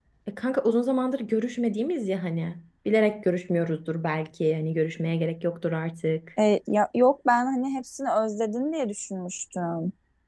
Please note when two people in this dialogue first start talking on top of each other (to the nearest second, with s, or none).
none